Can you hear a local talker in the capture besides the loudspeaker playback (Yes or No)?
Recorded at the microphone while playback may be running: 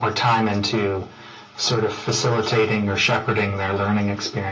No